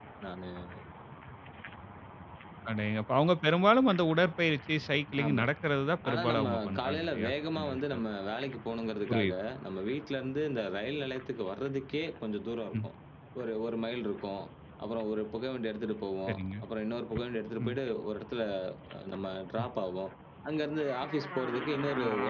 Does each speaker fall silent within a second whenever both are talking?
No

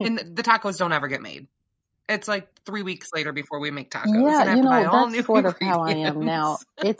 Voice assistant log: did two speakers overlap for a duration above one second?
Yes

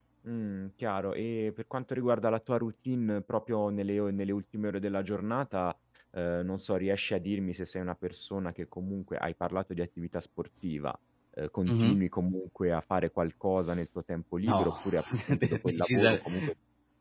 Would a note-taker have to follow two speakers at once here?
Yes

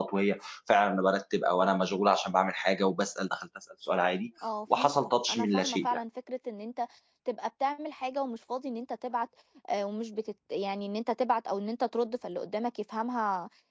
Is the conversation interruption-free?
No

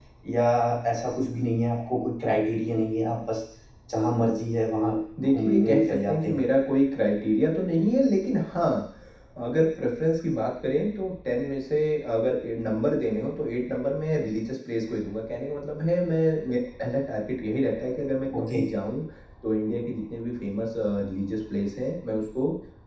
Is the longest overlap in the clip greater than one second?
Yes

